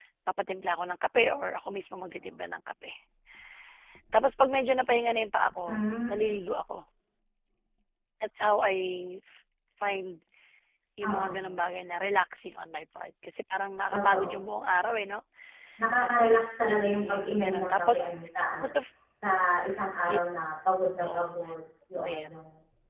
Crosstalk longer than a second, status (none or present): present